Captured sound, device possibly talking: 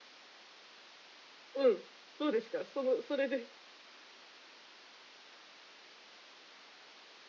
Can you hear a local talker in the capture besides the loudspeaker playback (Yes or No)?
Yes